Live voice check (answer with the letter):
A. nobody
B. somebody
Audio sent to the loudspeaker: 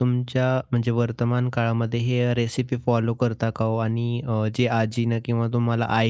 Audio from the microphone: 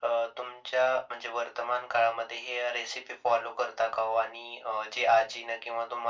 A